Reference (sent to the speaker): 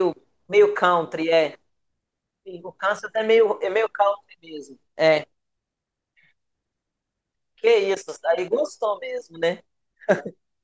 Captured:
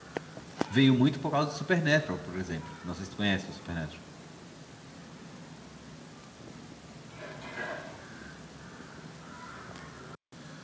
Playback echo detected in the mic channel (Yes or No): No